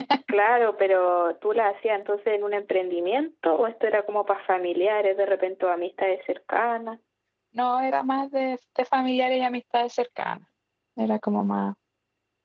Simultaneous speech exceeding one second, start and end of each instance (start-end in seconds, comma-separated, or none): none